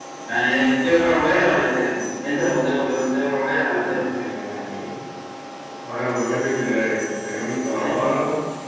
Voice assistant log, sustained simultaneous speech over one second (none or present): none